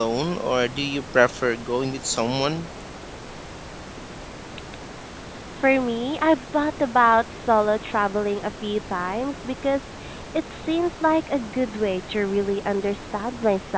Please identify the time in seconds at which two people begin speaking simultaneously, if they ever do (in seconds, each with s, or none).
none